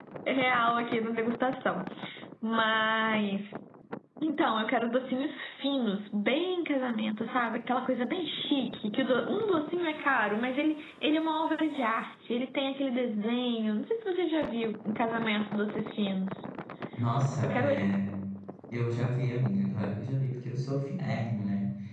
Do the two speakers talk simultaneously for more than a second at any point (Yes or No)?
No